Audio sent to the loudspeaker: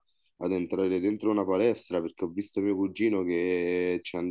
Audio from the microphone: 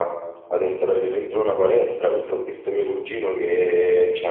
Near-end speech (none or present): none